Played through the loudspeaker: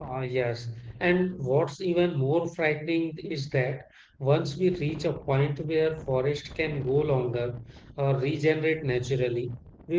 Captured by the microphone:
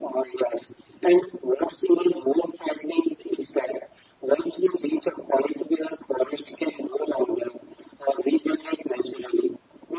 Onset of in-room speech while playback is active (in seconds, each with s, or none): none